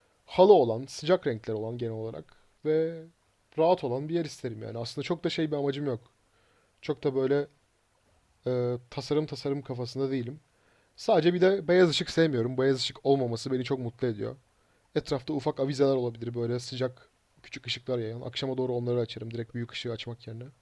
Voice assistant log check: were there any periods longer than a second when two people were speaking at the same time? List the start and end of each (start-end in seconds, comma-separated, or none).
none